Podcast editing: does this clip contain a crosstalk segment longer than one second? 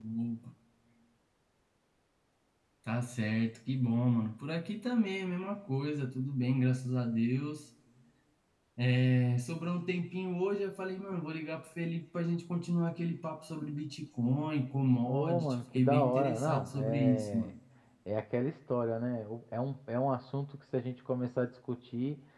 Yes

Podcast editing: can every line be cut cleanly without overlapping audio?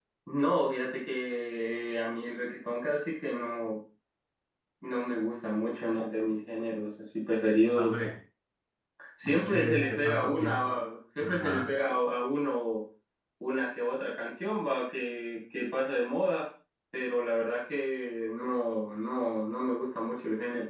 No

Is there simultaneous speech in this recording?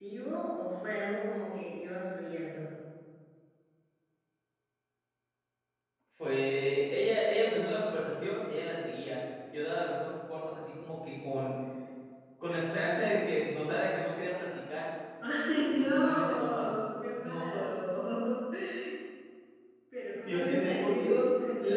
Yes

